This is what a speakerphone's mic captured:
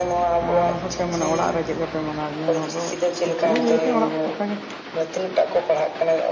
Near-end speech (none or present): present